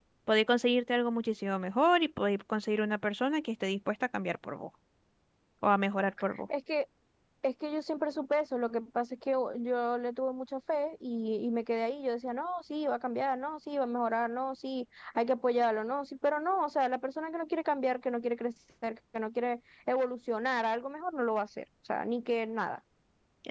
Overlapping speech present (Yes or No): No